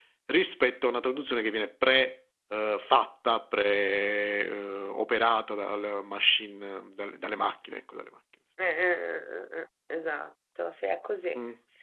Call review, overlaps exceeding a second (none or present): none